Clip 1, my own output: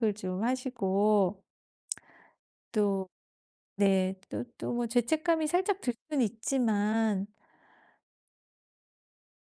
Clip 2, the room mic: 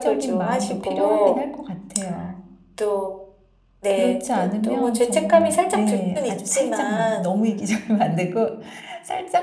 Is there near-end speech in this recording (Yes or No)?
Yes